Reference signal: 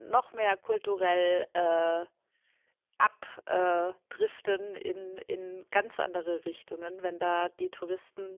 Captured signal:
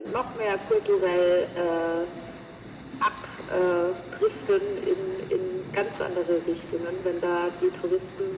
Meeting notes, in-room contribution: none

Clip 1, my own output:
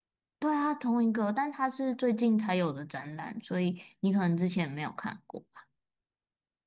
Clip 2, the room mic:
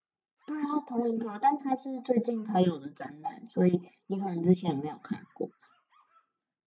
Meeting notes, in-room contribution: none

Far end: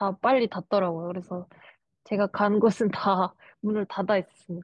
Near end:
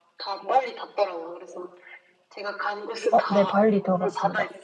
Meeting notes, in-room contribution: present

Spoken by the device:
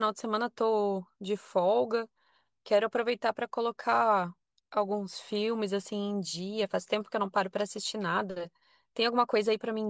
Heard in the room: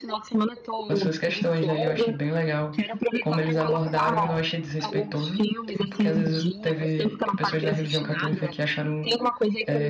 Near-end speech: present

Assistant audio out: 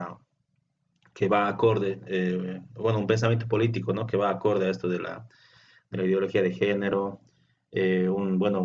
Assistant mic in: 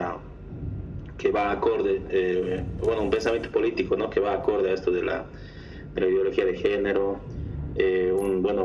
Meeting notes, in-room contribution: none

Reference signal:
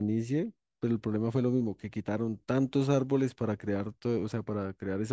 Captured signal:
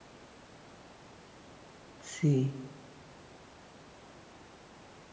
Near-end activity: present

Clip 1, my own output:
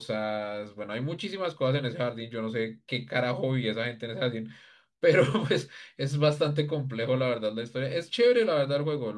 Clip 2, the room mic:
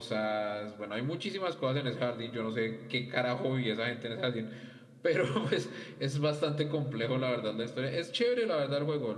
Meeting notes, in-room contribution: none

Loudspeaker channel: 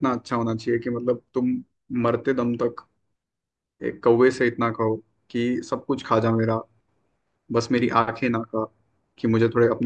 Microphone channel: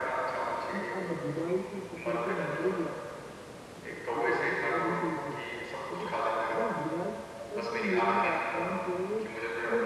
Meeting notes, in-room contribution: present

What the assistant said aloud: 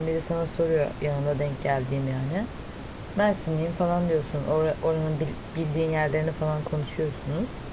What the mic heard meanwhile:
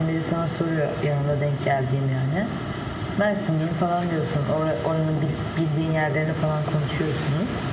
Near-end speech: none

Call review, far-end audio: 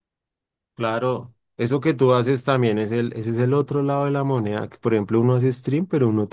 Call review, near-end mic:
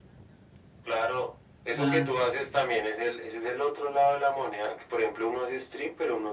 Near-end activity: present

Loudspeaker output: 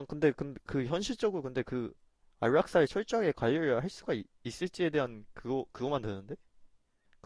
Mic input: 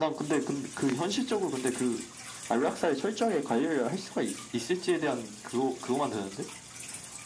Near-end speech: none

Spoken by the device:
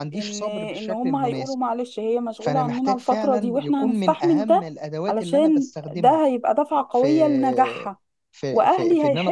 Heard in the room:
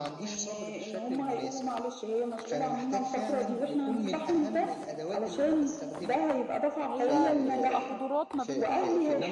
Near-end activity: present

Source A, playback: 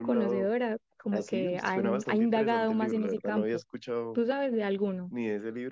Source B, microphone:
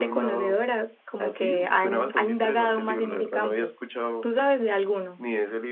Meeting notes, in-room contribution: none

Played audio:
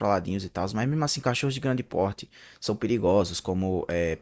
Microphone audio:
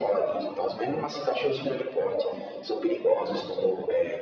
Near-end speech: none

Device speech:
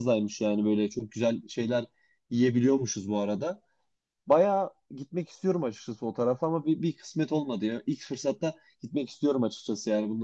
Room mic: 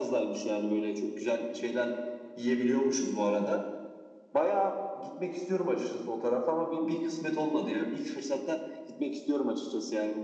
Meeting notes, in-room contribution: none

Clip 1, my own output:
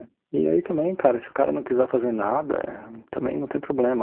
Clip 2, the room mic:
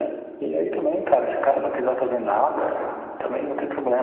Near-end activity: none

